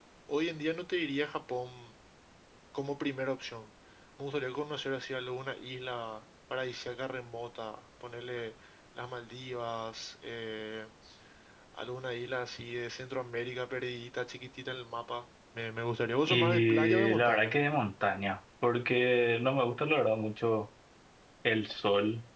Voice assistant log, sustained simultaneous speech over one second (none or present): present